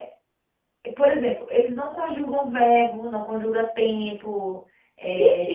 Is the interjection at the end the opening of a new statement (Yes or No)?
No